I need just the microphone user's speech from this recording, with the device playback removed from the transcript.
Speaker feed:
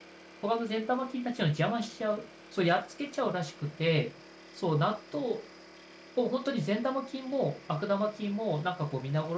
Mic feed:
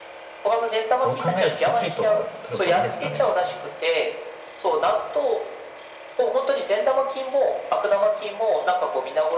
そう考えるとサプリとか取る方がいいんですかね。

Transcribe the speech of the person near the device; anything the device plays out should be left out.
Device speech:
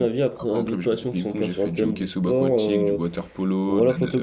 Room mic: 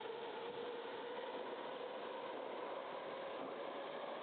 none

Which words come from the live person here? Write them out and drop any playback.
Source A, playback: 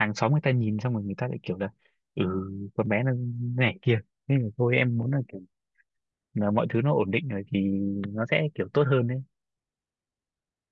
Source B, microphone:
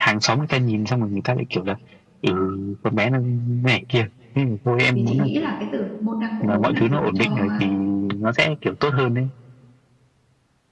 vì chị nghĩ là cái từ môn đăng hộ đối là dùng cho

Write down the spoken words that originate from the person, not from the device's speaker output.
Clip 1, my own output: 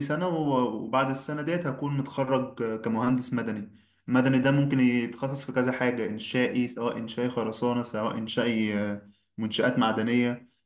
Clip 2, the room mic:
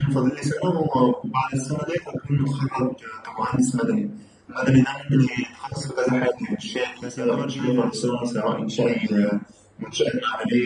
كانت يعتبر جديدة لسه

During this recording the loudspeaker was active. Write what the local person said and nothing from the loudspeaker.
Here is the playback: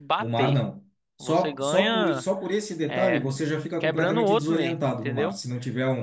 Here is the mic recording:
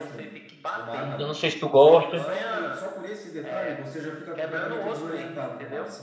Eu não sei se tu gosta.

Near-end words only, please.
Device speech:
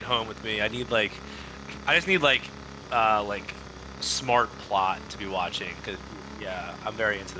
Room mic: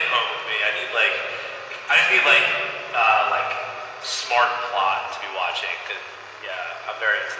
none

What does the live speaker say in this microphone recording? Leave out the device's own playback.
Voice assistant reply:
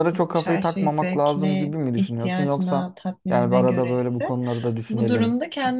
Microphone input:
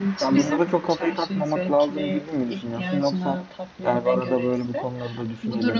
bizim

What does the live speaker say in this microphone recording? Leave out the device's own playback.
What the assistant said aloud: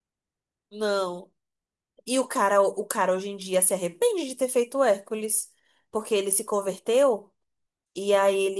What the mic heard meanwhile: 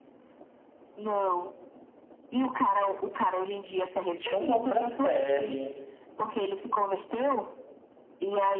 Tinha uma outra série.

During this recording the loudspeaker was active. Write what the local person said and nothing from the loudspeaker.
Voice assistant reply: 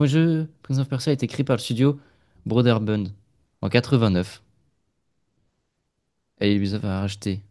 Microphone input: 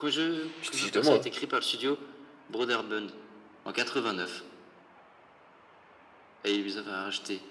Tu te fiches de moi.

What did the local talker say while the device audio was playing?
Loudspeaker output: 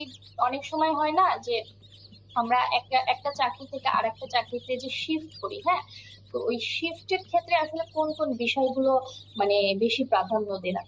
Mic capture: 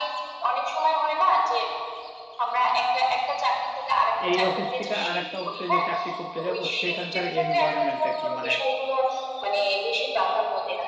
এই অফিস থেকে আর একটা অফিসে যে চাকরি করতে যাব সেখানকার এনভায়রনমেন্টটা কি মানে

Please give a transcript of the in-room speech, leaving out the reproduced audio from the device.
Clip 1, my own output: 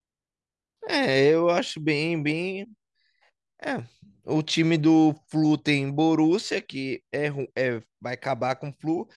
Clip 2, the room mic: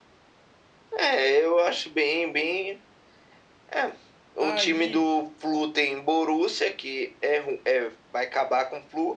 Aí

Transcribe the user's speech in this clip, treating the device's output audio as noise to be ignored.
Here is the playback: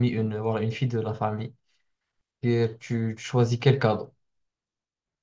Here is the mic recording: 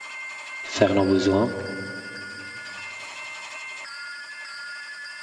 faire nos besoins.

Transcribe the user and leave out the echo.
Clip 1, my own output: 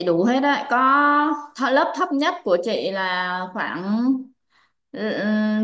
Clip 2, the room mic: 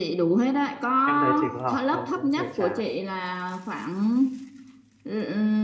Em thấy chị có học không cũng hơi chán.

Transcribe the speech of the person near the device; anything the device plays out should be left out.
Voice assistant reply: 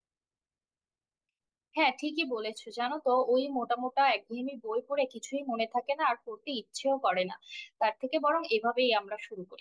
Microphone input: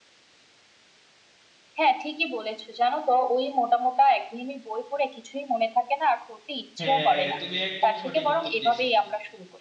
হ্যাঁ তুমি একদম সঠিক উত্তর দিছো

